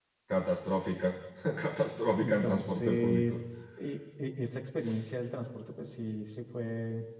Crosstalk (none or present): present